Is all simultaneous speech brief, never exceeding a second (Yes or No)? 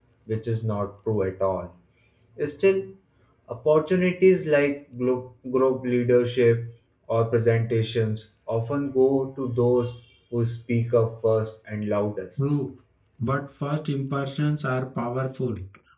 Yes